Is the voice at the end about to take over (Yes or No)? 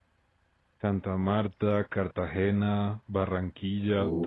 No